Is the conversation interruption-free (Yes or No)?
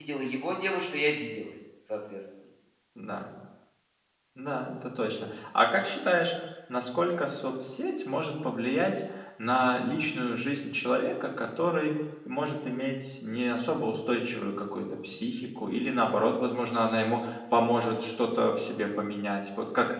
Yes